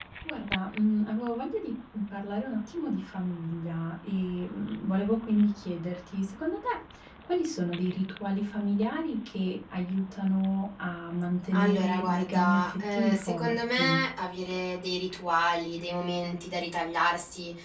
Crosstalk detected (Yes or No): Yes